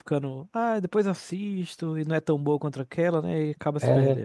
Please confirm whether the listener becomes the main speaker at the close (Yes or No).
Yes